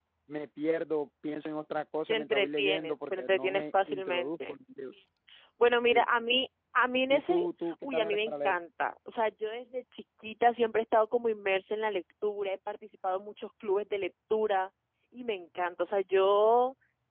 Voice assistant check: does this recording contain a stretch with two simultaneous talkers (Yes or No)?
Yes